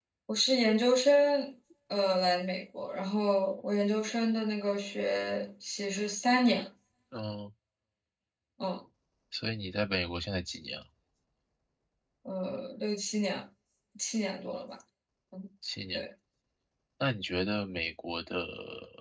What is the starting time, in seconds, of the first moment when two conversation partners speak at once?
none

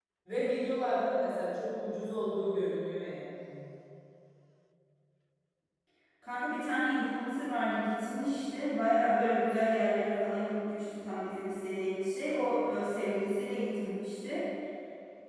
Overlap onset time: none

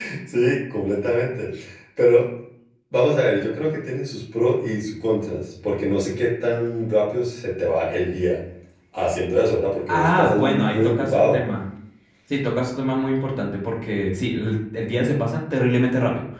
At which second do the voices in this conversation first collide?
9.9 s

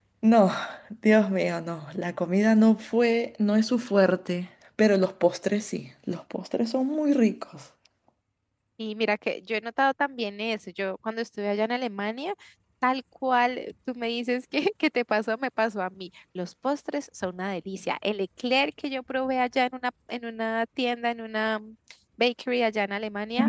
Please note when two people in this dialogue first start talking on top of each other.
none

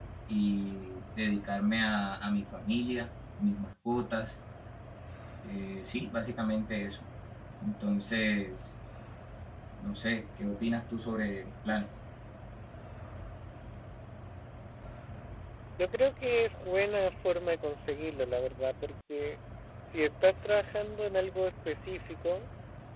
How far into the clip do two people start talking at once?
none

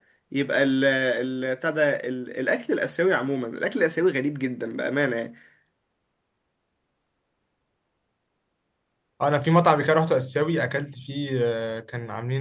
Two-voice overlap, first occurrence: none

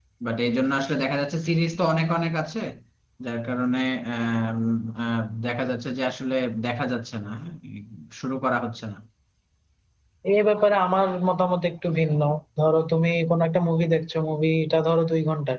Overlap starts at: none

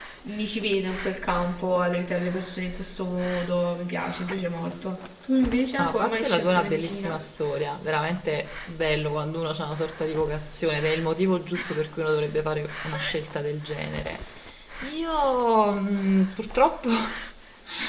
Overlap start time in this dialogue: 5.8 s

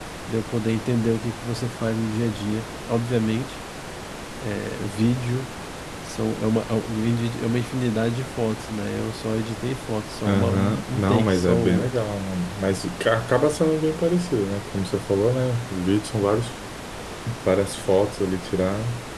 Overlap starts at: 10.2 s

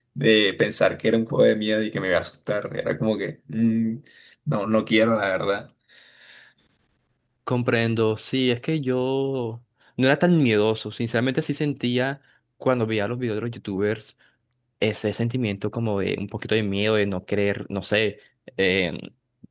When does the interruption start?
none

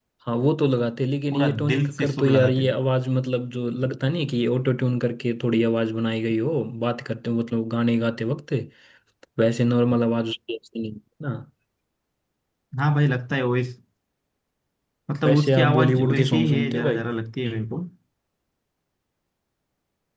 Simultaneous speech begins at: 1.3 s

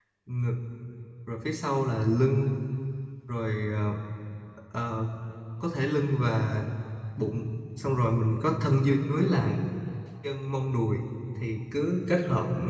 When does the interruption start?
none

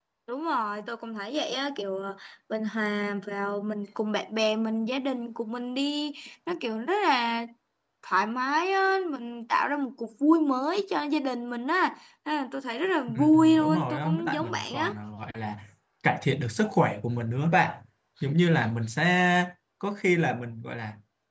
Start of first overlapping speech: 13.1 s

